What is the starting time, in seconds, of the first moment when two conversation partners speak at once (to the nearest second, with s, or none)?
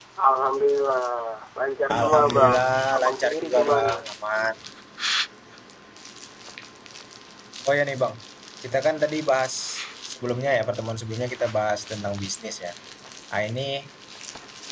2 s